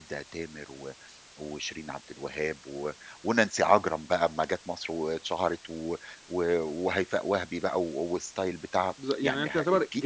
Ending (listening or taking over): taking over